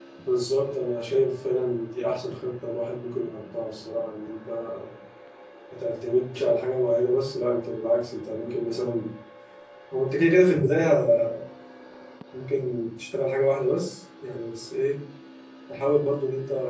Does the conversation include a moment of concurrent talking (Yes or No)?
No